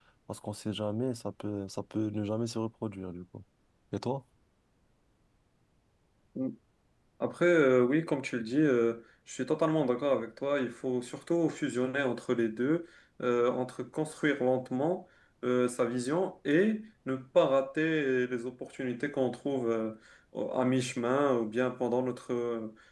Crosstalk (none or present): none